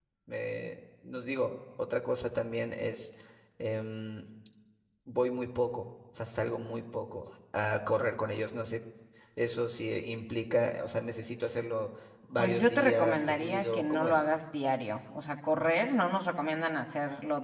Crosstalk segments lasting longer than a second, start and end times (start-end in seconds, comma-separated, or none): 12.4-14.2